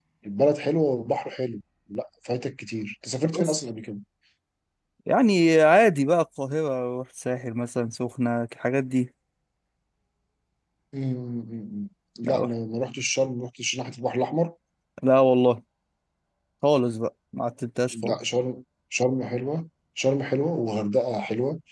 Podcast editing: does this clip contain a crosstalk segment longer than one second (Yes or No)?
No